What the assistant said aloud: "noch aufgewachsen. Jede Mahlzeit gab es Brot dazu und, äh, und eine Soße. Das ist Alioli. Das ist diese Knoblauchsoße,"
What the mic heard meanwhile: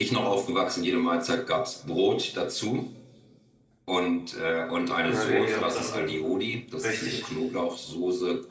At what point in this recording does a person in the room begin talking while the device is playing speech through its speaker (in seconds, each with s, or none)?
5.0 s